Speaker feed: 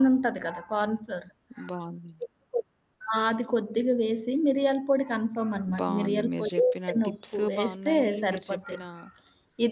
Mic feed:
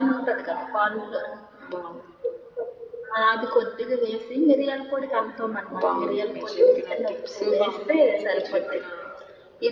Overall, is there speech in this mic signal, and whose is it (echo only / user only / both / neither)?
echo only